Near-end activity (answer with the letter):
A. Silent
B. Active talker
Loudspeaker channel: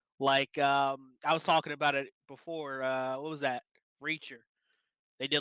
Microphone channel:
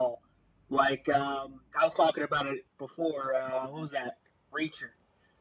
A